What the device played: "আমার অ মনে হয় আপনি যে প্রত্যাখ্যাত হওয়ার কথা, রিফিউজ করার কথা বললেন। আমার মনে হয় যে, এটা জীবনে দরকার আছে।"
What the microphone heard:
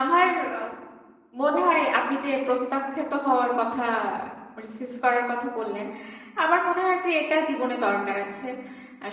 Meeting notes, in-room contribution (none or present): none